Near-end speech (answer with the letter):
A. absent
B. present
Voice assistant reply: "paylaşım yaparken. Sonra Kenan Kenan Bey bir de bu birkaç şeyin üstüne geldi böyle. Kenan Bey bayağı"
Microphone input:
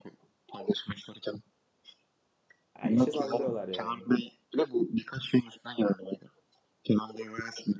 B